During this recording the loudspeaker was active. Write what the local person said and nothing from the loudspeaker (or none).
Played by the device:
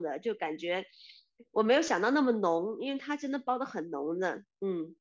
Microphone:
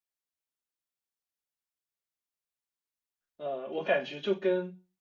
呃，我感觉就跟